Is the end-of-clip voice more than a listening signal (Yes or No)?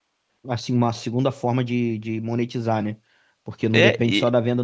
No